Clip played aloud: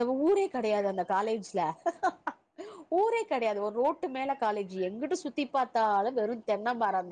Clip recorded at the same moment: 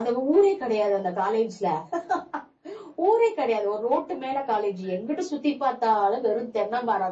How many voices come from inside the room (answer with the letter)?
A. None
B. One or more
A